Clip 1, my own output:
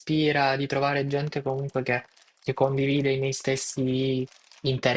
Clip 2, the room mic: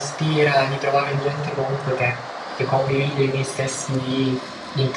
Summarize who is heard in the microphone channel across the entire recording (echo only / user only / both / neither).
echo only